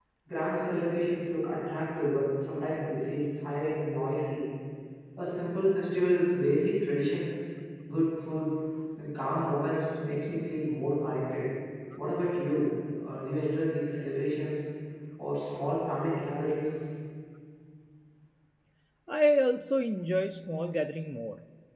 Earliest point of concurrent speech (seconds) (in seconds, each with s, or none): none